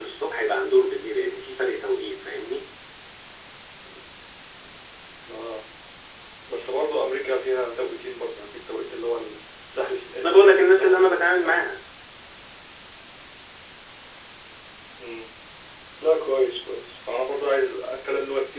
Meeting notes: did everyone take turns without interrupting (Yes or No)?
No